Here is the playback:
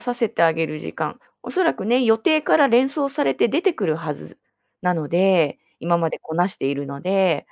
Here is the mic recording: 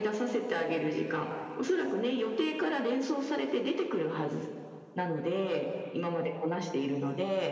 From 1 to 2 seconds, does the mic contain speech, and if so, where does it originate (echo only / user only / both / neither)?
echo only